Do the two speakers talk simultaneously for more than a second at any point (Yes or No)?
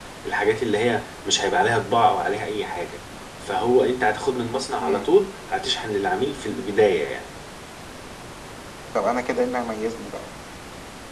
No